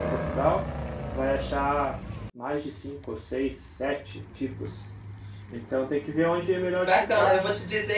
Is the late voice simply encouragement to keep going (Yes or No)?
No